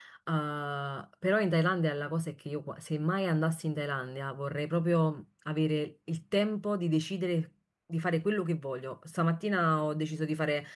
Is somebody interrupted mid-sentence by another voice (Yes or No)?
No